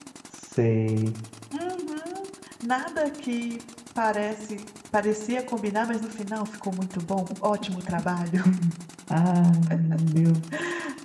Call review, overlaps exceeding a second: none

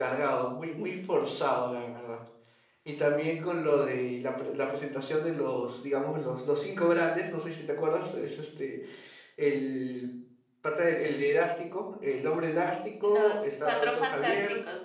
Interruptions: present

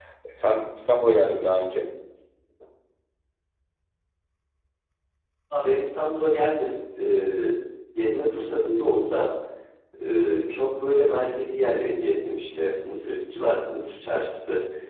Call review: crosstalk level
none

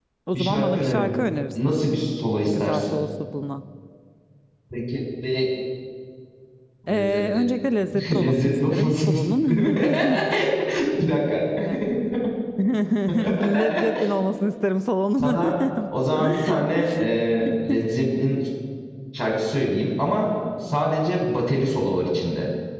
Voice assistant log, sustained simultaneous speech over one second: present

